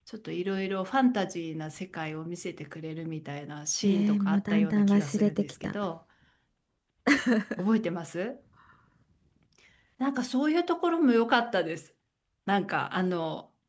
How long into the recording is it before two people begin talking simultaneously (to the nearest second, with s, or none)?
4 s